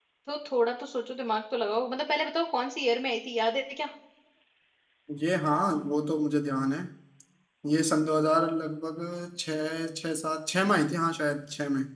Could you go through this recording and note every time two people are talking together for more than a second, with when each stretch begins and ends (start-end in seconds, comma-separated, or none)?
none